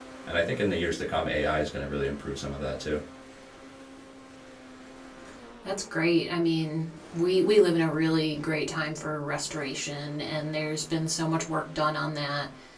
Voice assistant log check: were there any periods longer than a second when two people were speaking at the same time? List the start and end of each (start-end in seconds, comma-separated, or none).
none